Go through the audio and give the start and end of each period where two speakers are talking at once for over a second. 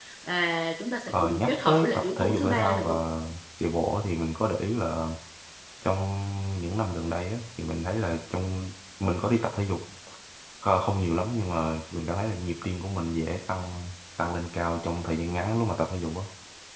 1.1-2.9

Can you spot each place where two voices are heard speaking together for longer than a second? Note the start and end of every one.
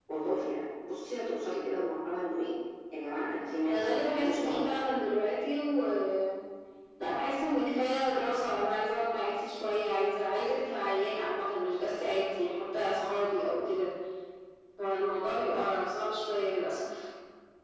3.7-5.1

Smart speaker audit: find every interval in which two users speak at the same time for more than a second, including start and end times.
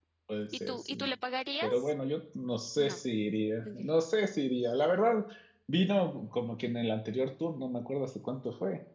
none

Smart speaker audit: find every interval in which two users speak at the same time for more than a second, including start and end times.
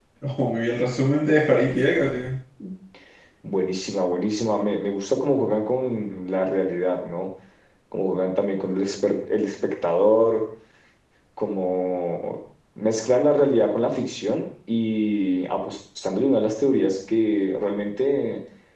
none

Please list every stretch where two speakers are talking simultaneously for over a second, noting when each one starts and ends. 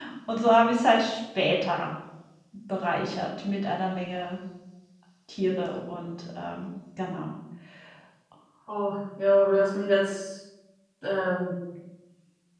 none

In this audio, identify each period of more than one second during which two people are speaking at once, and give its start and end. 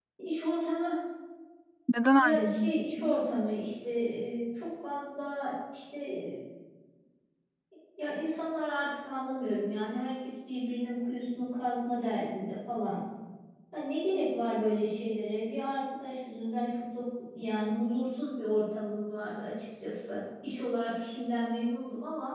2.1-3.5

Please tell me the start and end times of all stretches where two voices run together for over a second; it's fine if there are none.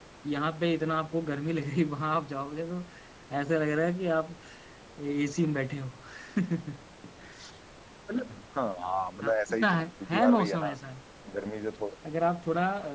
9.2-10.7

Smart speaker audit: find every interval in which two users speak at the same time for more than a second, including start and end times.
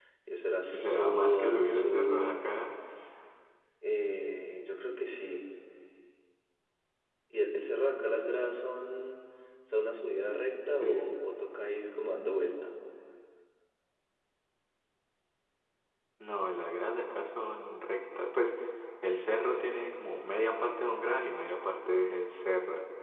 0.7-2.4

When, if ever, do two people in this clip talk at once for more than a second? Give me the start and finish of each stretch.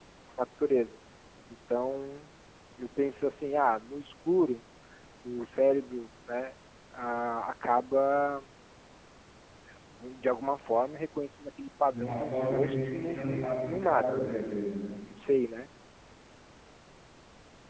11.9-14.2

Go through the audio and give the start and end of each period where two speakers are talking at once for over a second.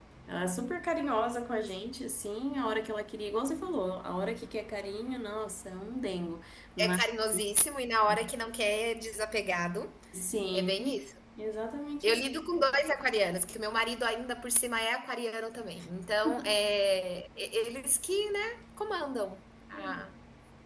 none

